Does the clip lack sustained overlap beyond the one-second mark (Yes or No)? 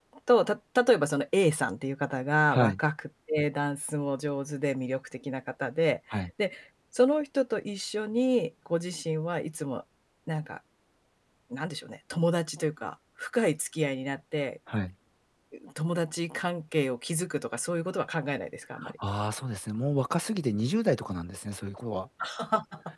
Yes